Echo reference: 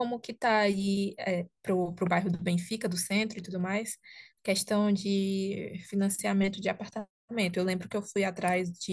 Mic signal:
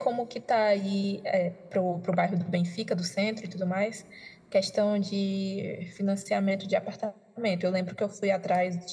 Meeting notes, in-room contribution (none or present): none